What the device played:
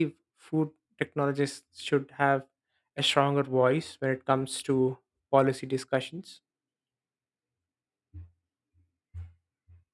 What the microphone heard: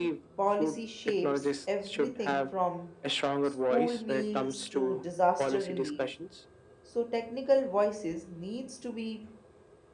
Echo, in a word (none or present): present